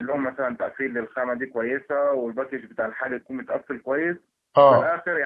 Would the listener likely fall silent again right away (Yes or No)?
Yes